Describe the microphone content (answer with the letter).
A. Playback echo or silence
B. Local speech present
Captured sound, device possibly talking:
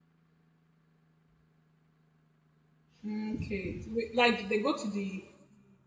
B